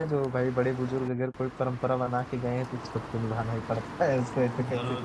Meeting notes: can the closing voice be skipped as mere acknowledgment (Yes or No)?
No